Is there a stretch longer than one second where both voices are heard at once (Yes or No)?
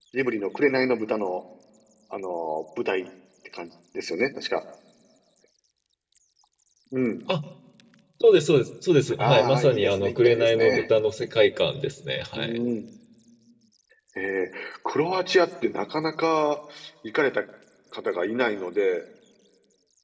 Yes